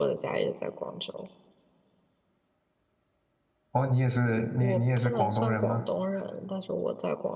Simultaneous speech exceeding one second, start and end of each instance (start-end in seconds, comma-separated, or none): 4.6-5.8